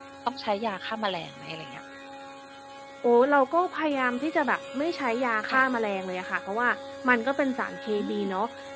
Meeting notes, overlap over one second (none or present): none